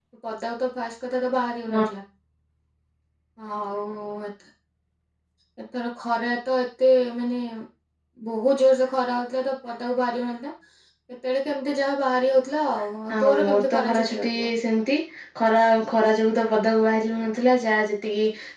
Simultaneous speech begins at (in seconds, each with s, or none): 13.1 s